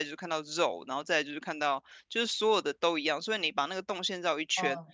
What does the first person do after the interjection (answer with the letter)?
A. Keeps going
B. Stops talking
A